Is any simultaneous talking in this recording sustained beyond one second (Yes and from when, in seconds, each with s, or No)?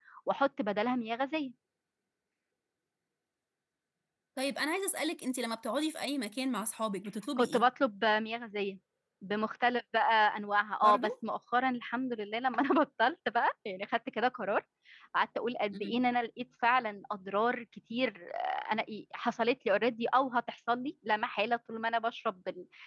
No